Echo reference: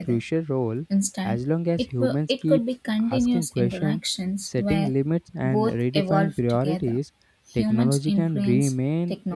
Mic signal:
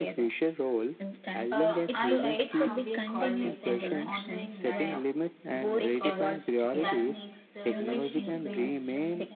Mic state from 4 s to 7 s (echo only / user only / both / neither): both